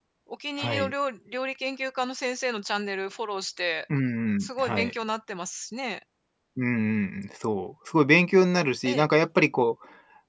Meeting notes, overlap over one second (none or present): none